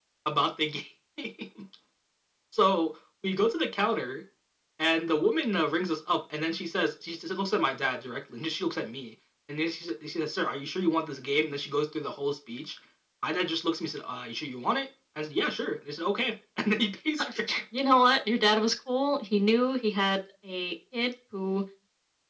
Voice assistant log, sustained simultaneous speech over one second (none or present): none